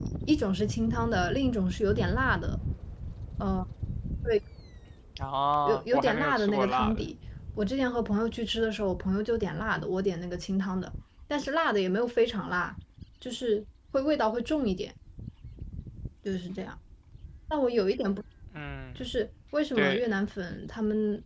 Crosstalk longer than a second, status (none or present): present